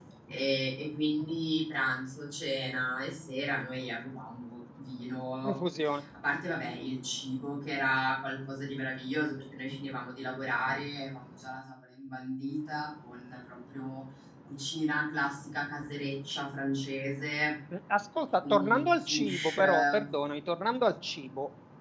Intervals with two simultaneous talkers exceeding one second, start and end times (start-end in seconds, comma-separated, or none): 18.5-20.0